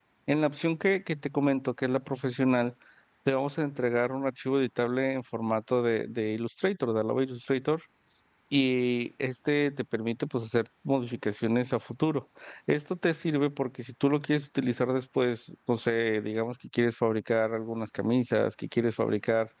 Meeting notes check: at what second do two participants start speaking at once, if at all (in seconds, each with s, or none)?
none